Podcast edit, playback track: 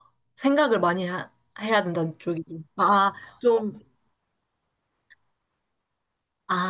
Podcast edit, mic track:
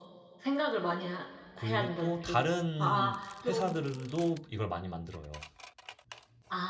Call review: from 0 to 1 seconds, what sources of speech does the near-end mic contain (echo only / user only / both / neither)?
echo only